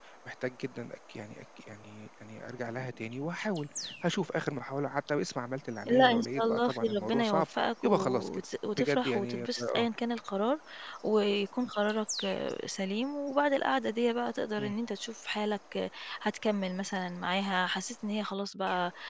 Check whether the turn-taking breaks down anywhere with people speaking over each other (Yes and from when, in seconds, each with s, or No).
Yes, from 5.8 s